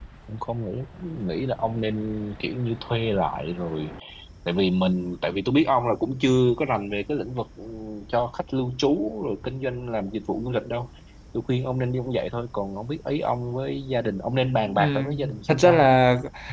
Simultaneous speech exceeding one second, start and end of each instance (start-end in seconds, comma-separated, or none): 14.7-15.9